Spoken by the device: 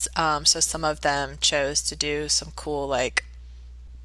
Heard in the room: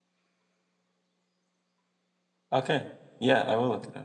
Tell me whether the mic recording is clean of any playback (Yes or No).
Yes